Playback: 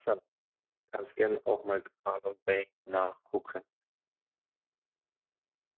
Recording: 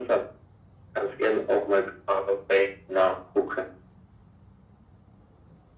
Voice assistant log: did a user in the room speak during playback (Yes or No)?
No